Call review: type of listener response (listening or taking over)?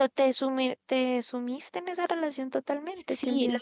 taking over